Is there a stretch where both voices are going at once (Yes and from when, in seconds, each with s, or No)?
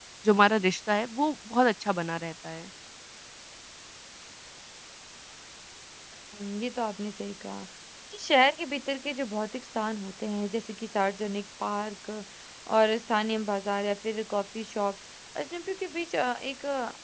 No